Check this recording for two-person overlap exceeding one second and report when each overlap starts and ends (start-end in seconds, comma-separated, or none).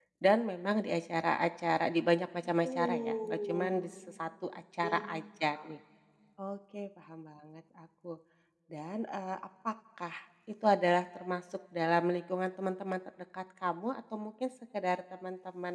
2.6-3.9